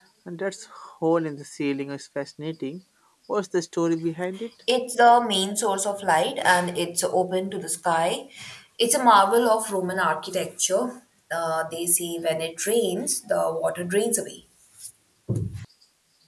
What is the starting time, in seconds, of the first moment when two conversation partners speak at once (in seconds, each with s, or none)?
none